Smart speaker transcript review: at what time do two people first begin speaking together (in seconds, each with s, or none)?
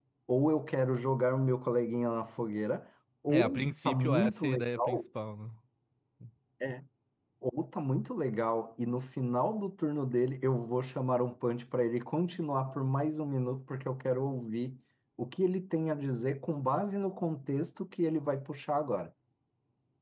3.3 s